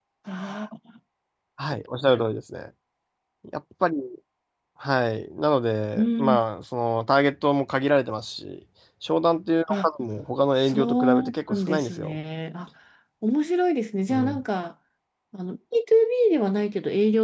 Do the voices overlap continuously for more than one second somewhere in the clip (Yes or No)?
Yes